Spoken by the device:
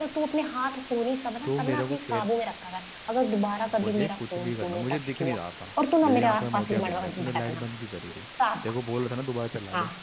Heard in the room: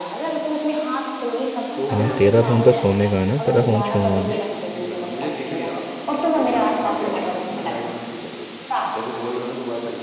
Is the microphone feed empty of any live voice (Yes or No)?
No